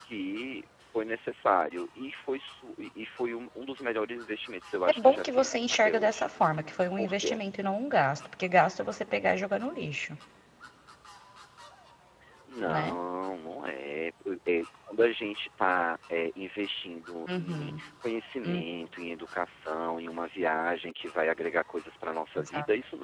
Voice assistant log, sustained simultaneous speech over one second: present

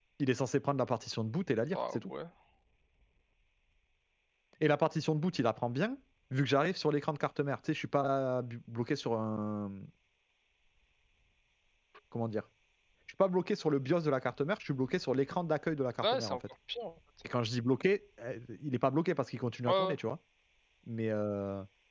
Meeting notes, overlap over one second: none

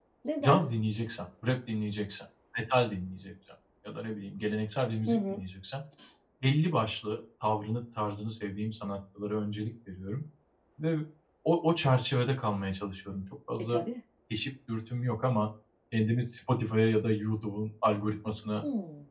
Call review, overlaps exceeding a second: none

